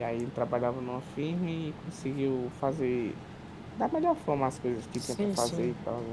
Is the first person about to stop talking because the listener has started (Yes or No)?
Yes